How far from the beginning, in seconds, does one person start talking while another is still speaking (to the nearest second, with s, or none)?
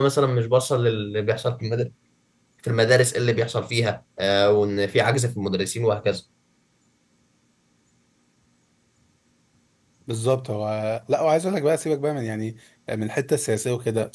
none